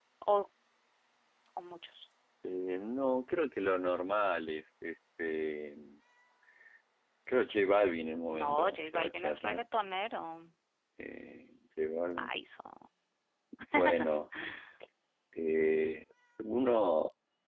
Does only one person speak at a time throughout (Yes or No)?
No